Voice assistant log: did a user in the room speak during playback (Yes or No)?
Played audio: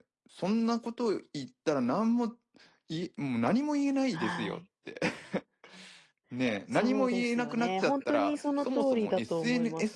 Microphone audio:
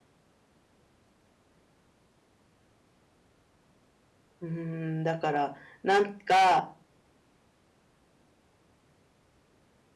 Yes